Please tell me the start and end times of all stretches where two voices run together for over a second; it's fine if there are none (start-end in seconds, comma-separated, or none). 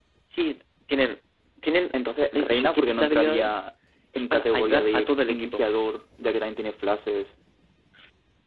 2.3-3.5, 4.2-5.6